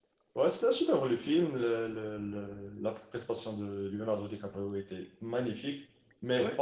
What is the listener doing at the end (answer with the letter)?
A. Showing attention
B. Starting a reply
A